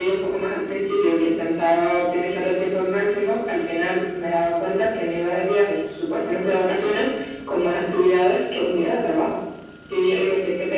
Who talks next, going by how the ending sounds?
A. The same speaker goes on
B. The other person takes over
A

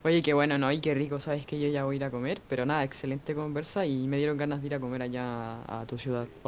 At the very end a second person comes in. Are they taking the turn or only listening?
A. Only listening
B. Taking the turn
A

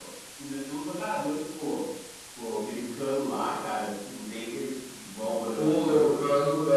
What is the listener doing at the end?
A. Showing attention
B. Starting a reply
B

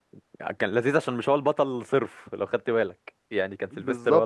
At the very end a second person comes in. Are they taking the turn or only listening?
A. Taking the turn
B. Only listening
A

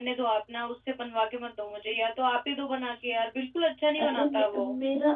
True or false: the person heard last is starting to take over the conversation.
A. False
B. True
B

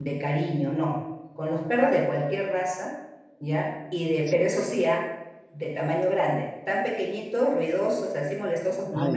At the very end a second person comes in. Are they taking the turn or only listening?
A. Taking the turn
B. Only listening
A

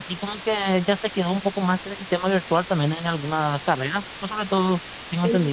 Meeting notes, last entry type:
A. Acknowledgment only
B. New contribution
B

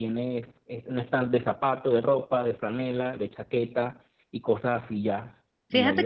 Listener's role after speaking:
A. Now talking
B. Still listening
A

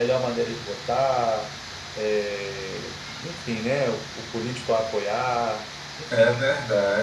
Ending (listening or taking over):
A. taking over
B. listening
A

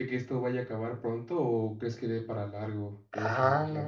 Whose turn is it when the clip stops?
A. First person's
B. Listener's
B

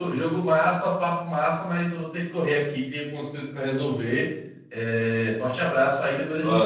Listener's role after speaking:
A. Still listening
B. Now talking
B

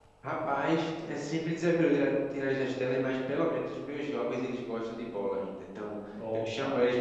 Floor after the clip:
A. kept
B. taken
A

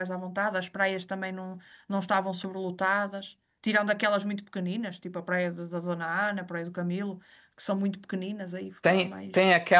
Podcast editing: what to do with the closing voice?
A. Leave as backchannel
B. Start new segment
B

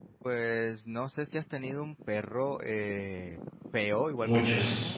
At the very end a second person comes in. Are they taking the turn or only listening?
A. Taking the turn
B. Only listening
B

